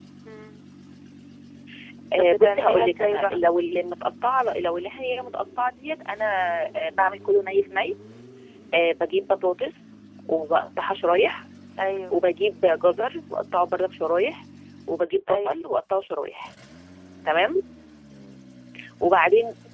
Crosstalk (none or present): present